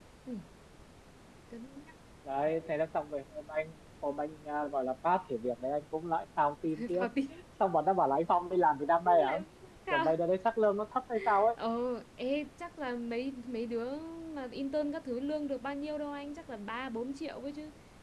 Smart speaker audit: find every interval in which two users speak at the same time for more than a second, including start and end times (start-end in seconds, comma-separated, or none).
none